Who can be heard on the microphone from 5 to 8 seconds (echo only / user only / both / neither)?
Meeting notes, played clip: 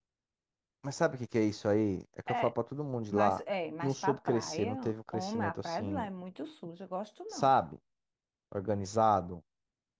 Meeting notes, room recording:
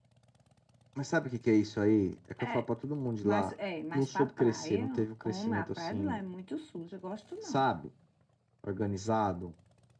echo only